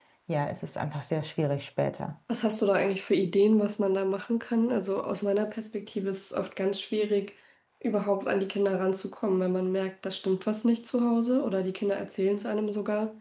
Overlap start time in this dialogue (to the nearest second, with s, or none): none